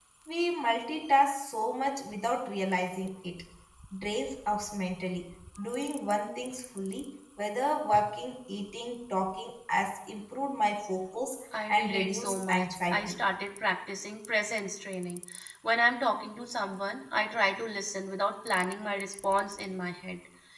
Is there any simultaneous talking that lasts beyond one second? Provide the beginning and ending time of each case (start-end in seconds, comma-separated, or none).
11.7-13.2